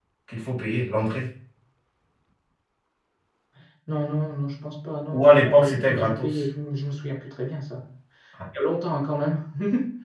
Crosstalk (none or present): present